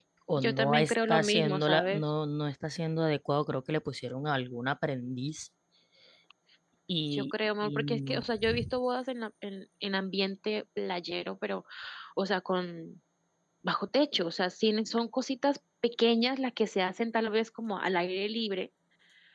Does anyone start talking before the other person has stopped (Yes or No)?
Yes